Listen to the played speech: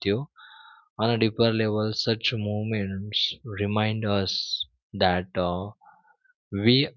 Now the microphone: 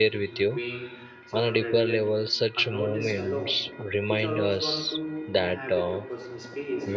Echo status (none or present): present